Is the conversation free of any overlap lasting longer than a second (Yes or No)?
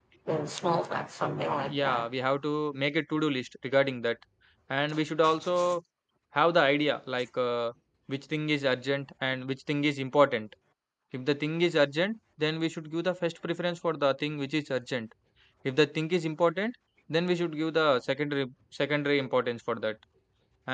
Yes